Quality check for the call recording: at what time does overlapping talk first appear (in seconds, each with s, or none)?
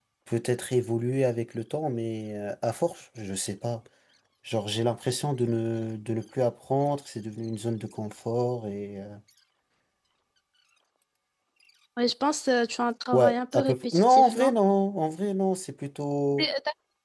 13.1 s